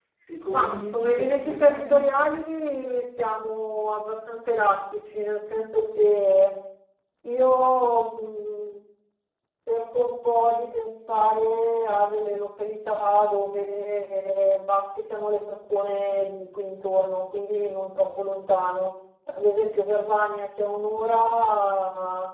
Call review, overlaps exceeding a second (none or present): present